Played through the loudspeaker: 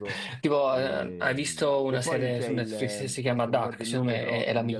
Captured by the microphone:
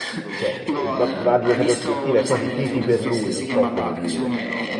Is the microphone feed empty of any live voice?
No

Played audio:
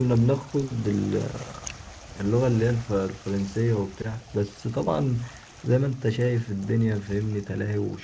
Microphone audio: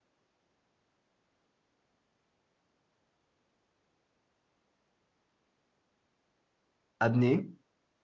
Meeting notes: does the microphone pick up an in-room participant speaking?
Yes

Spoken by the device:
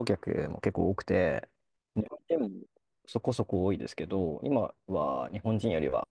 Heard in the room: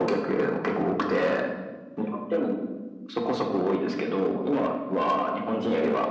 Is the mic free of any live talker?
Yes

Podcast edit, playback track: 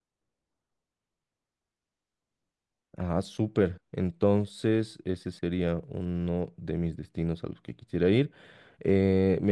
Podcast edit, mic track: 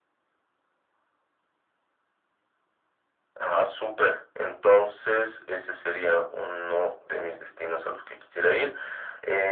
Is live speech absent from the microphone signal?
Yes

